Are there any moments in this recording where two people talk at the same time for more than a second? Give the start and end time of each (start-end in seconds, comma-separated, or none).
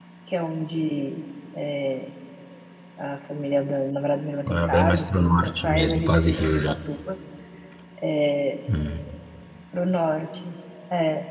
4.5-6.7